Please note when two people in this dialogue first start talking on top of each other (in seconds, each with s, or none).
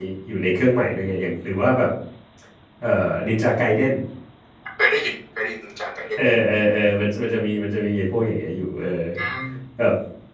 none